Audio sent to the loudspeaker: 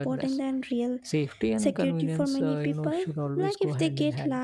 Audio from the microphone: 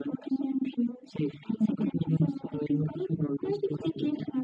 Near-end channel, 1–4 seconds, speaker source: echo only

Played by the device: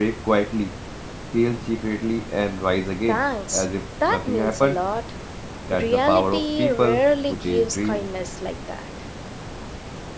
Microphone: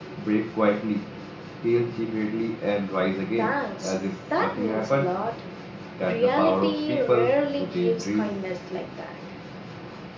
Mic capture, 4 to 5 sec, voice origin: echo only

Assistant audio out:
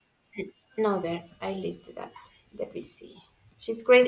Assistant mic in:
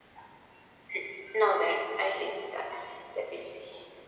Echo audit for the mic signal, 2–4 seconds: echo only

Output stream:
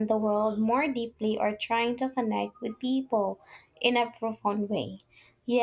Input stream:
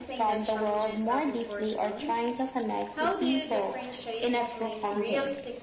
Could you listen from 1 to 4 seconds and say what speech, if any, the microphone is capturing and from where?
both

